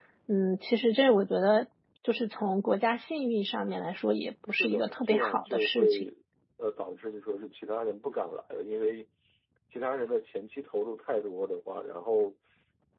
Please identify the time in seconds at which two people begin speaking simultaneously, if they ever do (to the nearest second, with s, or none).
4 s